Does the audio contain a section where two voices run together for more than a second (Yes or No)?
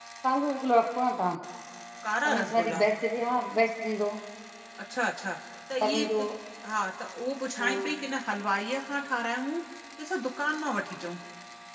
No